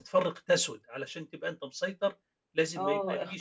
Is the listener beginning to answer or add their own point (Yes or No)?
Yes